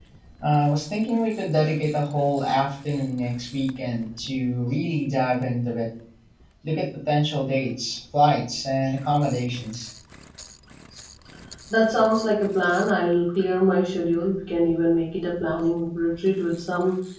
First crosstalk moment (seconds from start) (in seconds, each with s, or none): none